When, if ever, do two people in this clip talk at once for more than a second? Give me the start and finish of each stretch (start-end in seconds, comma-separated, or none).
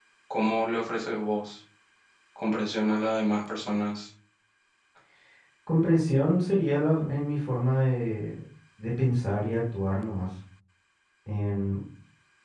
none